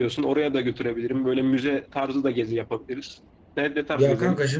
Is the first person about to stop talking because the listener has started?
Yes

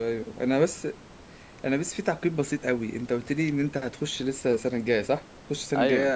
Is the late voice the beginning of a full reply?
No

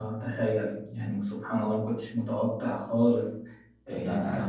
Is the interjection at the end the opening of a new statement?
No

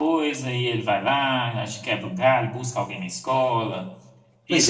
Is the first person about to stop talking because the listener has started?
Yes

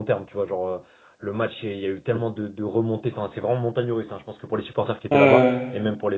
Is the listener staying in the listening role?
Yes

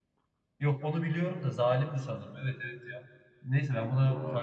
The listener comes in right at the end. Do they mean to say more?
No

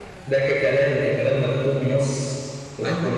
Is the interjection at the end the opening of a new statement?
Yes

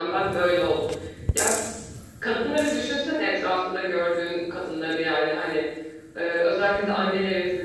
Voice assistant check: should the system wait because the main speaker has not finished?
Yes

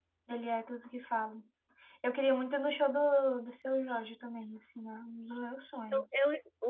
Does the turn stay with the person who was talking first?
No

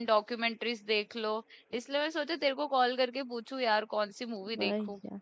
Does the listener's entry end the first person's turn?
Yes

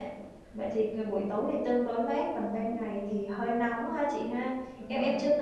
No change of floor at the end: Yes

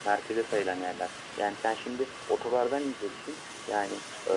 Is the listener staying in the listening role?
Yes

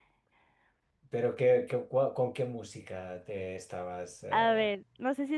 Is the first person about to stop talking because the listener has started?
Yes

